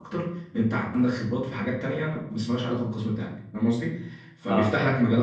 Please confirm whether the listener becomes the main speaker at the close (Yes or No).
No